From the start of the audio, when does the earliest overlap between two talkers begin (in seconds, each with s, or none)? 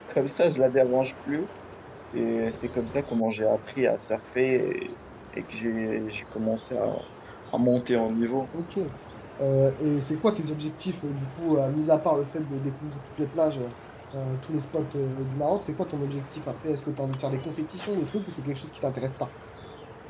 none